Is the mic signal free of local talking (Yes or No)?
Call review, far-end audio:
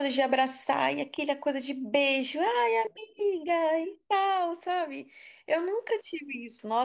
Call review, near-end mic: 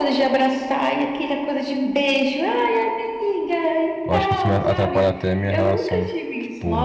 No